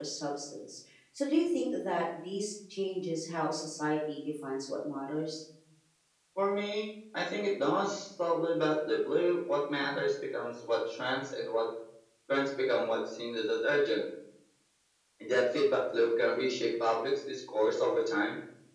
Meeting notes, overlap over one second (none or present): none